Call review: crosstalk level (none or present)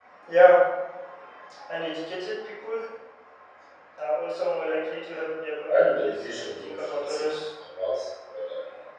present